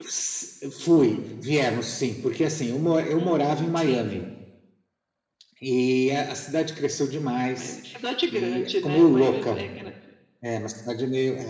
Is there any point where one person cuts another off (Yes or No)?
Yes